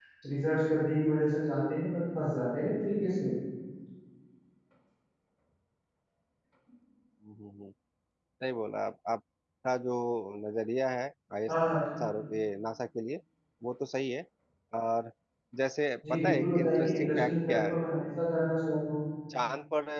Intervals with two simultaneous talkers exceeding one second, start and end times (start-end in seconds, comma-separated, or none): 16.1-17.8